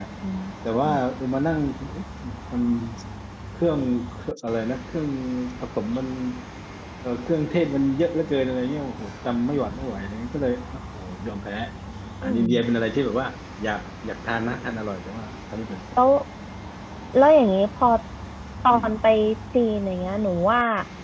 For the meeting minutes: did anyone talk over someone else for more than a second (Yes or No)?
No